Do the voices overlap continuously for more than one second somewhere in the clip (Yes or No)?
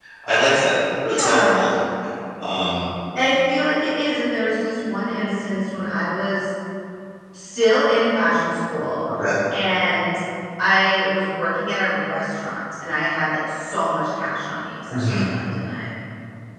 No